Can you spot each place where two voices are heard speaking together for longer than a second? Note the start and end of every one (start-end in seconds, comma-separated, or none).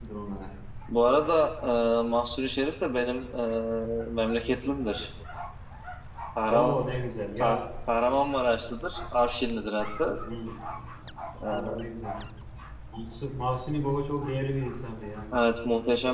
none